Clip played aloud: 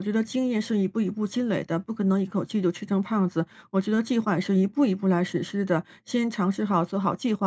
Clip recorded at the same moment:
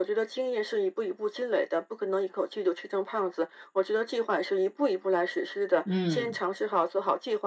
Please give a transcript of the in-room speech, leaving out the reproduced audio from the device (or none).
嗯